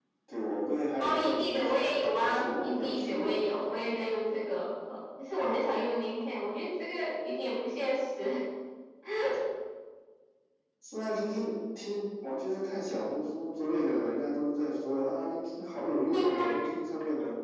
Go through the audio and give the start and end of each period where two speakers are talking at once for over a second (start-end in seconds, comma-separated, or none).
1.0-3.8